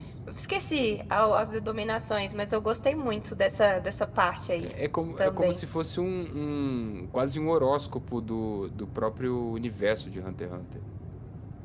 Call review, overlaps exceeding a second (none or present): none